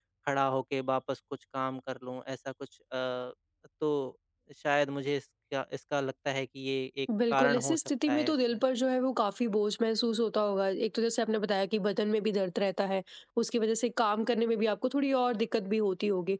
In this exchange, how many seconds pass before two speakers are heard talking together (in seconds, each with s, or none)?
7.1 s